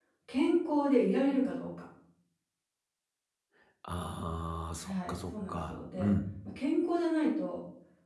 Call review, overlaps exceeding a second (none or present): present